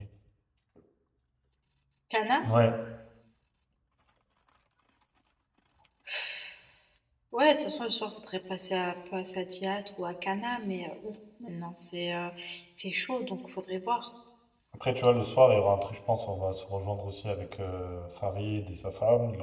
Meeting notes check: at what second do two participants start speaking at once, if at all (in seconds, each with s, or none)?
none